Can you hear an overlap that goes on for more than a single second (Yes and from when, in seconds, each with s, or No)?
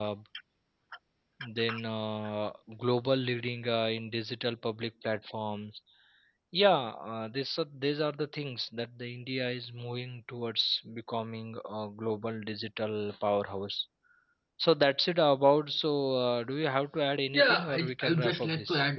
Yes, from 17.3 s